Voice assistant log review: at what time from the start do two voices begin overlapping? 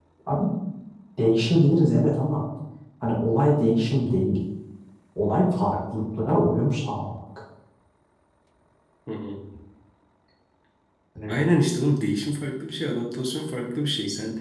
none

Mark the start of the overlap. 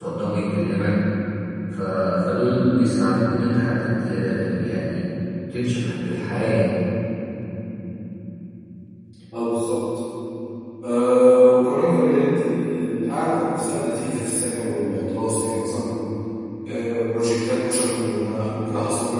none

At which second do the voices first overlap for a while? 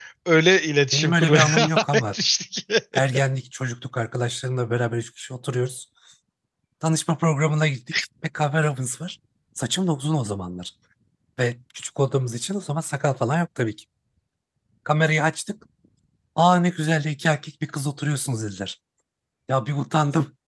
1 s

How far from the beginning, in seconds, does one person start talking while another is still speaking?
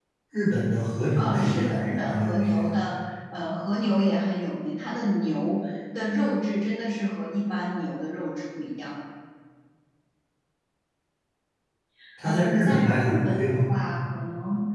1 s

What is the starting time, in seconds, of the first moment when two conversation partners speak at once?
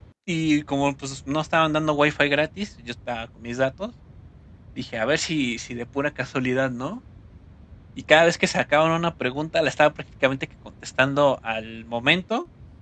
none

